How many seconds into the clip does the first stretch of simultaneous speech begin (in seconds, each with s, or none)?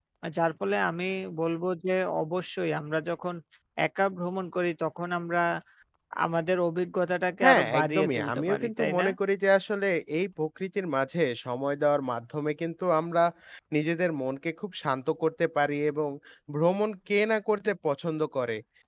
7.4 s